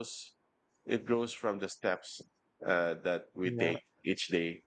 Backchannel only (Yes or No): Yes